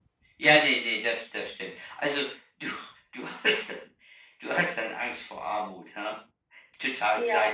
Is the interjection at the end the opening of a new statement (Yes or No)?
Yes